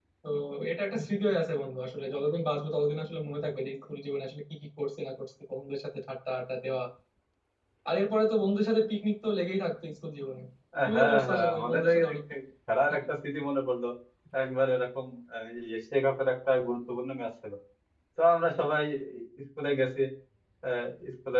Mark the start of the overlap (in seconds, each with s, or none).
10.8 s